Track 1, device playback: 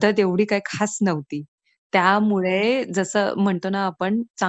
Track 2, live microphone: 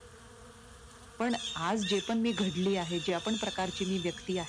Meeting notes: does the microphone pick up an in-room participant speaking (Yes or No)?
Yes